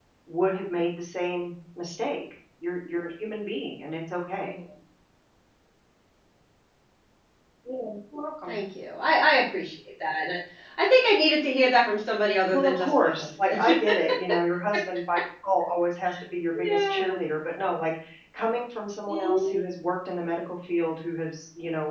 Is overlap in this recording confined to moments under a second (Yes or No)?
No